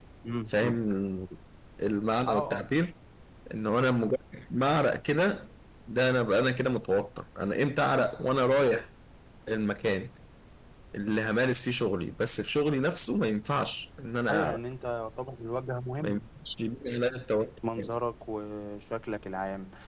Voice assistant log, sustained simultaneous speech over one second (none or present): none